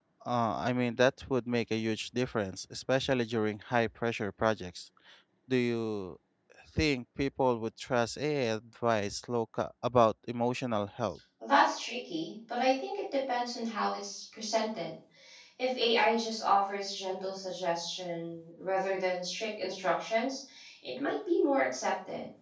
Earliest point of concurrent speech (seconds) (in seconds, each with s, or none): none